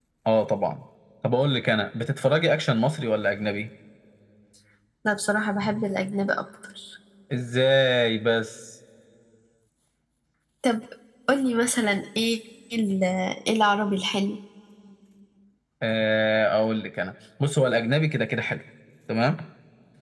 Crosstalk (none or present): none